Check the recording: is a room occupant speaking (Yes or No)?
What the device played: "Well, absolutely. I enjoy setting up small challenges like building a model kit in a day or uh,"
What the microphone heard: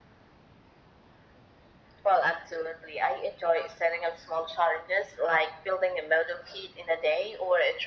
No